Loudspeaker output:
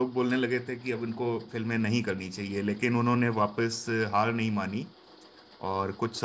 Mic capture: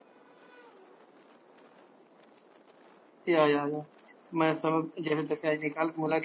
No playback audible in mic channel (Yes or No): Yes